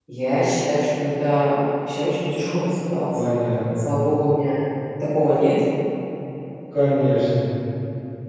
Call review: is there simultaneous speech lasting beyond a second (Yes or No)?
No